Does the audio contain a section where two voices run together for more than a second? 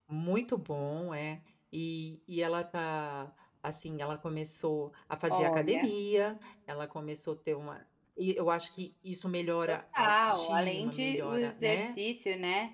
Yes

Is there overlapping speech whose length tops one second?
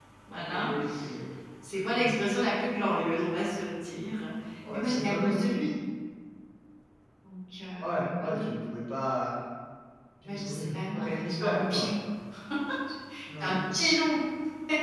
Yes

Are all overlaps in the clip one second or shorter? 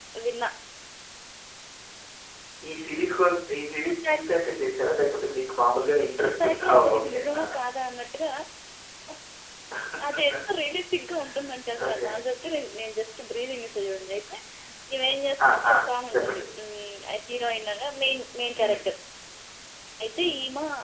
No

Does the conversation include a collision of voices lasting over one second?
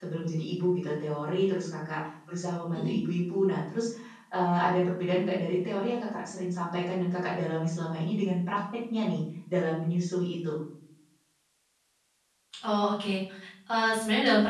No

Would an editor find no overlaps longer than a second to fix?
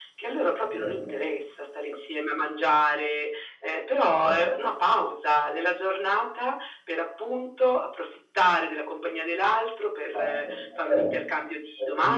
Yes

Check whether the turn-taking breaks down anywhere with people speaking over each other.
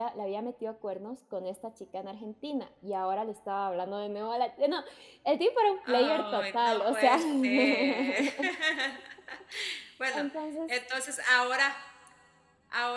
Yes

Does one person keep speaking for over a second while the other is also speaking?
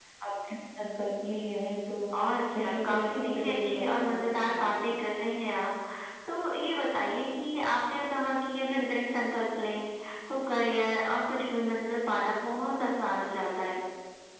Yes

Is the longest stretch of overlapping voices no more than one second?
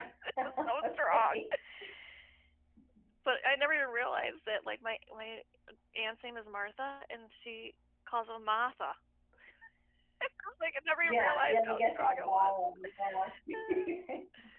No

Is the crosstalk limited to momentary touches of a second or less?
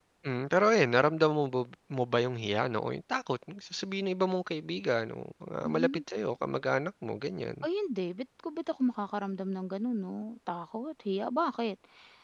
Yes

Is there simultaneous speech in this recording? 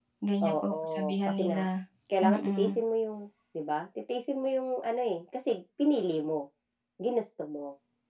Yes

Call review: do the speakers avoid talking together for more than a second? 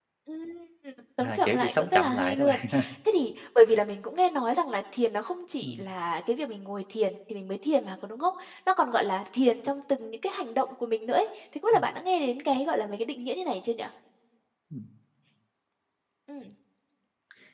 No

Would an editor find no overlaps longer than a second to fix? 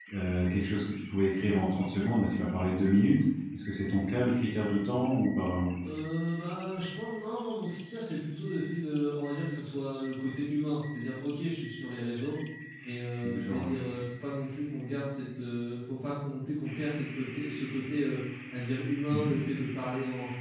Yes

